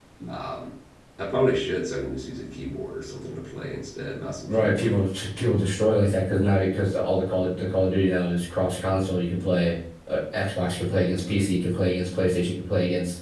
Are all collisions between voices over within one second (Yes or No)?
Yes